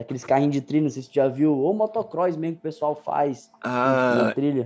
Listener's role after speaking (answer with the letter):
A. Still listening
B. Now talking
B